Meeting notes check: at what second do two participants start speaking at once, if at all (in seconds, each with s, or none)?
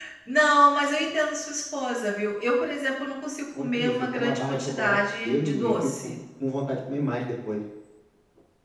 3.6 s